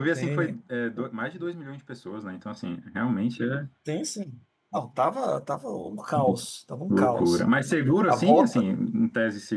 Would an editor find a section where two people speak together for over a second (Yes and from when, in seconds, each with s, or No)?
No